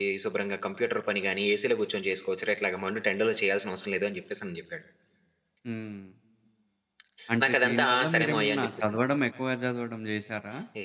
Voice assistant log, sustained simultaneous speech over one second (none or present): present